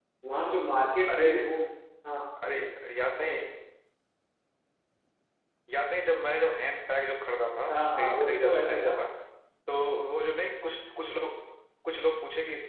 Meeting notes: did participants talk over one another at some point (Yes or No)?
Yes